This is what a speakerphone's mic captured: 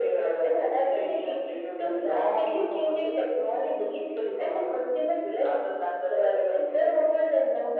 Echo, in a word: present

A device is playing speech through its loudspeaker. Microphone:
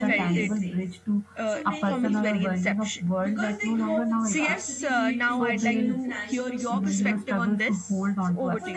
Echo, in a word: present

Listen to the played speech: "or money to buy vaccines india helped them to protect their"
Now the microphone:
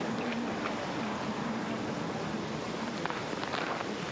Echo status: none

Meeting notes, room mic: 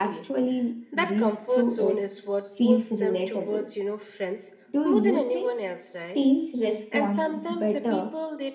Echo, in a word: present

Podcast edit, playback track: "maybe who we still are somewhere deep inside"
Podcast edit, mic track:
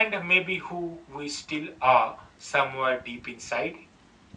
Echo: present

